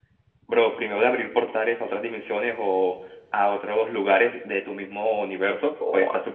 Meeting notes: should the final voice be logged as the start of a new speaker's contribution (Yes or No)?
Yes